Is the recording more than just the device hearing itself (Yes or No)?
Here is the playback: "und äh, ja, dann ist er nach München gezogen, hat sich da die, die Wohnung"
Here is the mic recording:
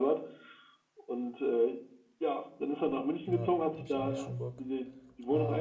Yes